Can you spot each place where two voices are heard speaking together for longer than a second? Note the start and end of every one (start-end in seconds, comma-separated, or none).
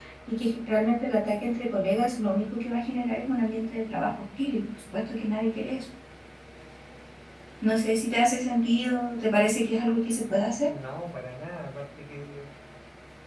none